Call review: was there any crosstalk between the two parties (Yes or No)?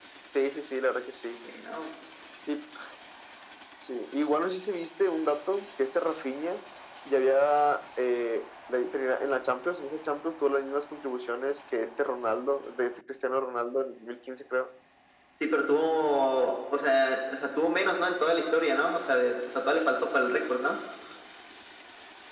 No